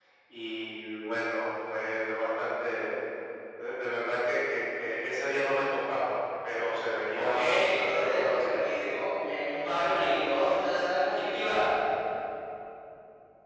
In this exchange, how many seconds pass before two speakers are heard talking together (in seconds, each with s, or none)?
7.1 s